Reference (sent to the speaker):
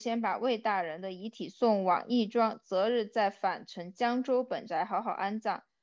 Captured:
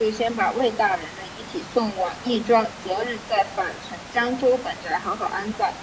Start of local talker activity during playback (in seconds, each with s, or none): none